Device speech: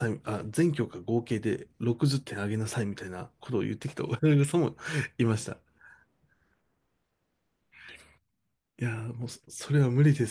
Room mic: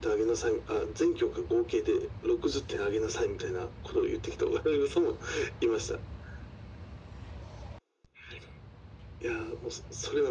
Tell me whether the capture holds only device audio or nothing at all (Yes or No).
Yes